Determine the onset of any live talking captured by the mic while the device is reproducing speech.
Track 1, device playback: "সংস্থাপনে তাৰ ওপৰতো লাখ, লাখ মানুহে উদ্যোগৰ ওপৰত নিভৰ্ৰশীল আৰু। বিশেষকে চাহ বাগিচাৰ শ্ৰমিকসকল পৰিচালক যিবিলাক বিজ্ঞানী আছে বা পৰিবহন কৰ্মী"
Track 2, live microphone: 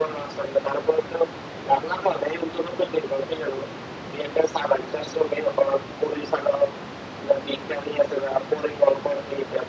none

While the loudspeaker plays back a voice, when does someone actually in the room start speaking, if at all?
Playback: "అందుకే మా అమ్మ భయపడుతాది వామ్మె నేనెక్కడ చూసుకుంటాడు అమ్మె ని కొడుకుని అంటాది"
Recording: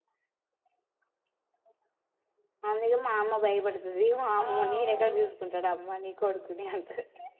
4.4 s

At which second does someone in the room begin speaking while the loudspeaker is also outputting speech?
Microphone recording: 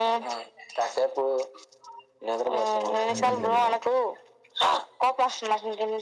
3.1 s

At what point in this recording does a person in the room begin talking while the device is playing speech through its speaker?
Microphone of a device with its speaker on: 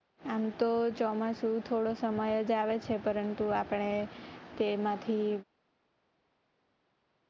0.3 s

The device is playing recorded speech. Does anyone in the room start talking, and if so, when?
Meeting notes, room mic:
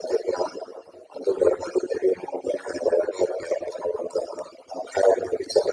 none

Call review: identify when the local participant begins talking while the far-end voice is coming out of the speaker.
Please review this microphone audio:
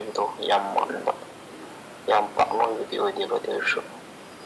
none

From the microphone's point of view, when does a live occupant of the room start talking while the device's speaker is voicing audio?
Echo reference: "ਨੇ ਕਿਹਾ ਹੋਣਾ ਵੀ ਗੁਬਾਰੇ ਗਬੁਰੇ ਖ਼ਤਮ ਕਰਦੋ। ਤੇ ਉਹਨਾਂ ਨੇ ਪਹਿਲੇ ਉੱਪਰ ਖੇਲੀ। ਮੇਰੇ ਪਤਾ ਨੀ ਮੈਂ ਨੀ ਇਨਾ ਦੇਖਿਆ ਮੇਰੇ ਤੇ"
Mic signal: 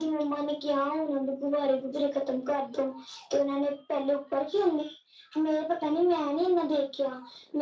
none

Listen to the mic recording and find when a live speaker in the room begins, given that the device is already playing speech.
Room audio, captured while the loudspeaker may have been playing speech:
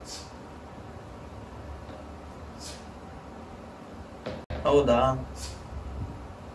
4.7 s

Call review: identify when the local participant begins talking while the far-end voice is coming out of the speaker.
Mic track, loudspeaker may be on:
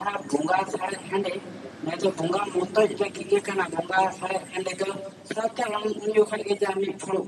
none

